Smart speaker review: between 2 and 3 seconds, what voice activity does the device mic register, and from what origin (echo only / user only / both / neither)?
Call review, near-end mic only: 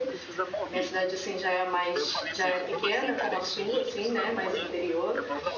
both